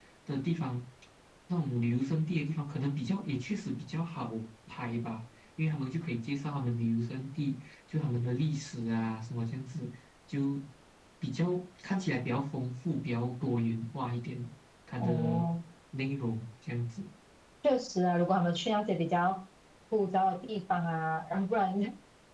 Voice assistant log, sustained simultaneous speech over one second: none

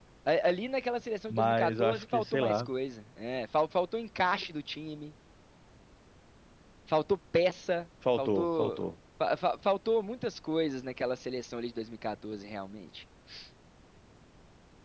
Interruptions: present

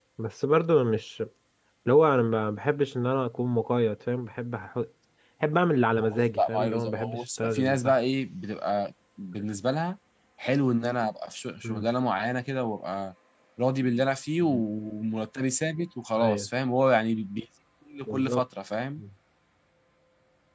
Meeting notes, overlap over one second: present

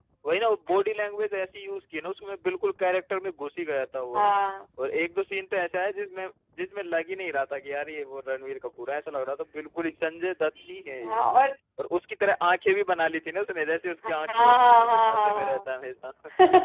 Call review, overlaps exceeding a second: present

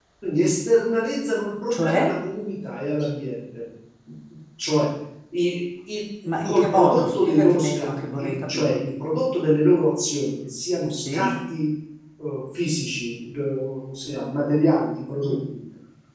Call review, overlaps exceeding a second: present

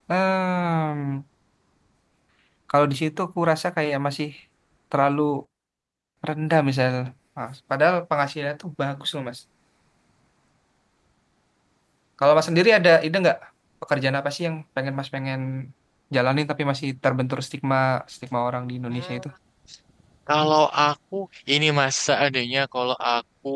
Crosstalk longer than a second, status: none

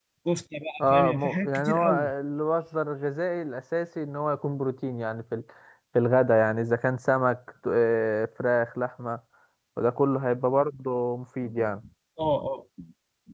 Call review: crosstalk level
present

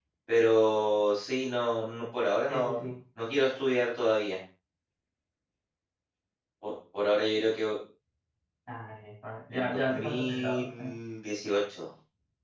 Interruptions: present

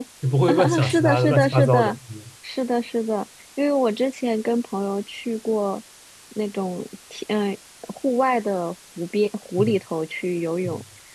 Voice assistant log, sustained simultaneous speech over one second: present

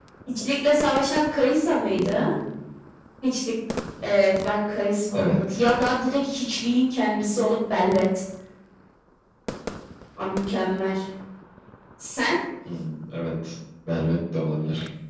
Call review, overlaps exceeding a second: none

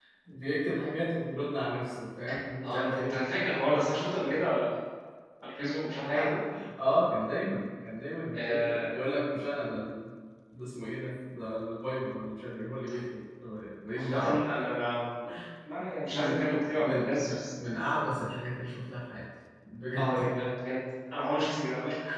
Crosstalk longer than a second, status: present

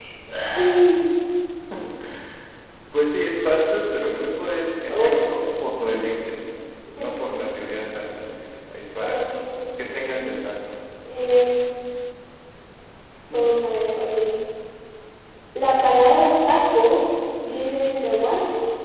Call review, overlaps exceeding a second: none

